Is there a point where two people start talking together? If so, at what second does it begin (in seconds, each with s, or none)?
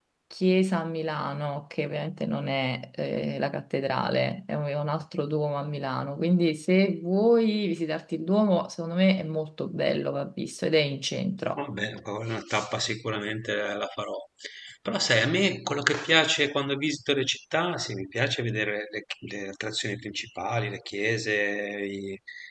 none